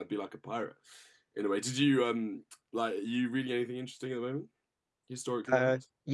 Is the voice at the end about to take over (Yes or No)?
Yes